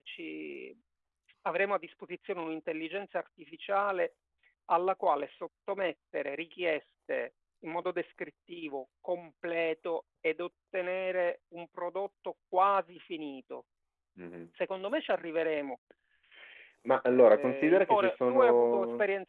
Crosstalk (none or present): present